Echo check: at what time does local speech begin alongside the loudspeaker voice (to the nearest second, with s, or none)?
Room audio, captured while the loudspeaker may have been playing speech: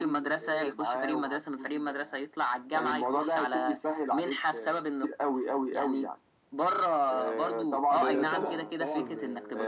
8 s